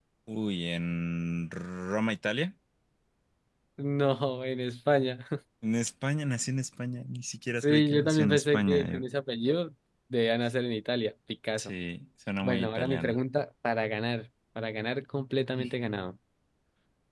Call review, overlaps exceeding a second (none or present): present